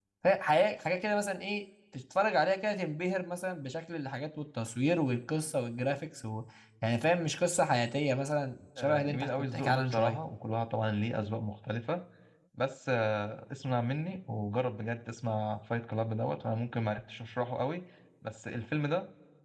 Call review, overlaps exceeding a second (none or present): present